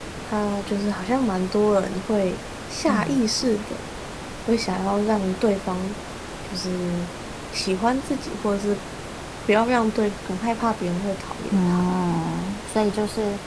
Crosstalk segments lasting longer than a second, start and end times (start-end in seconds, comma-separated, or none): none